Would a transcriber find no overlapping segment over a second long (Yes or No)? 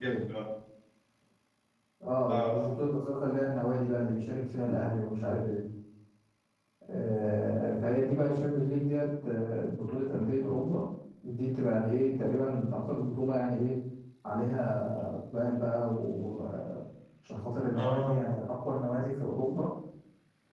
Yes